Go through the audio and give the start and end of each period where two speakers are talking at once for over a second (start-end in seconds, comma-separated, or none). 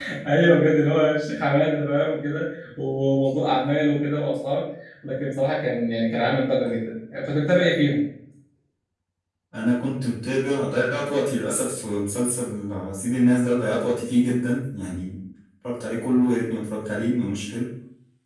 none